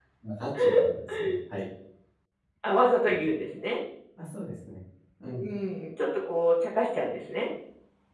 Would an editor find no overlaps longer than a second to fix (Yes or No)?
Yes